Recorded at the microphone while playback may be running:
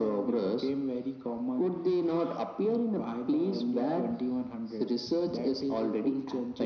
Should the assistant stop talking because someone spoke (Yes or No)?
No